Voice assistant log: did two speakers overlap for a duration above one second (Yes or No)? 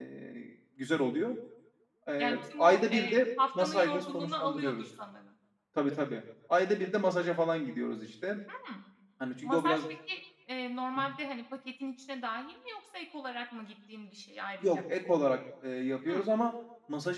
Yes